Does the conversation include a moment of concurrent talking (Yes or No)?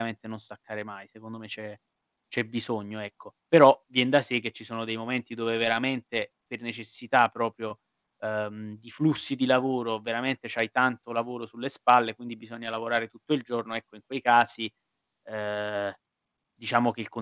No